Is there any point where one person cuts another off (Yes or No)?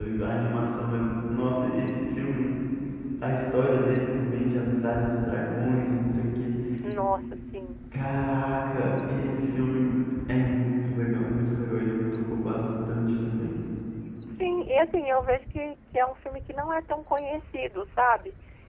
No